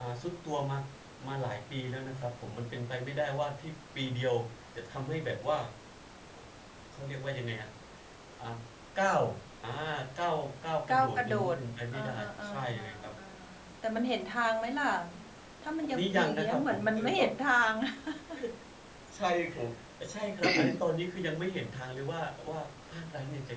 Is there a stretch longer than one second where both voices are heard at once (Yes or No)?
Yes